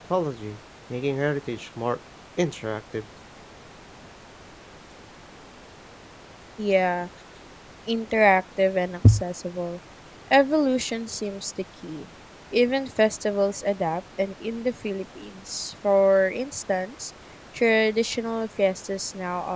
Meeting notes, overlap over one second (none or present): none